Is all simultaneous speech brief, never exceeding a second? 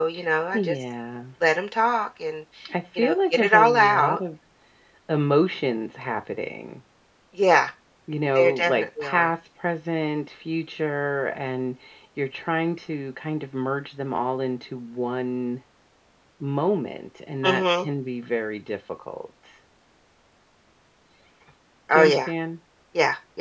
No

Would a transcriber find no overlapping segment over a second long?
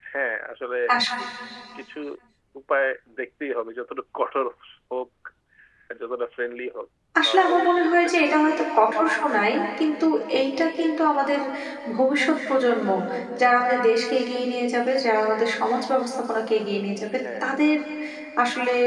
No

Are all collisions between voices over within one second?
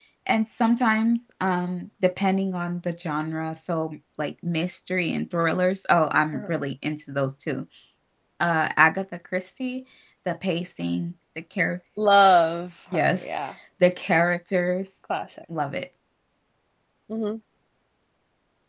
Yes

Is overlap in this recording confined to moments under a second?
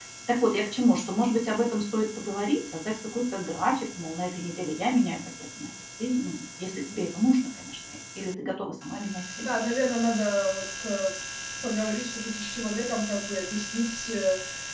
Yes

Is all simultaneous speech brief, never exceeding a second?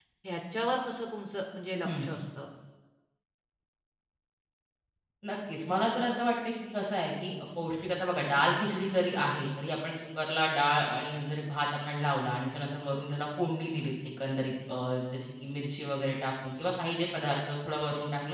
Yes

